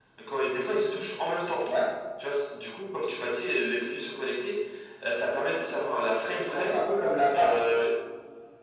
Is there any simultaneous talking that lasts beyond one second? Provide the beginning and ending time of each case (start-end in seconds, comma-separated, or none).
none